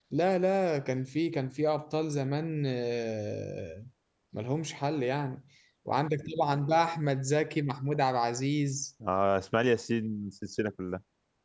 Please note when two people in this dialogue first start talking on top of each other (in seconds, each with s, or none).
none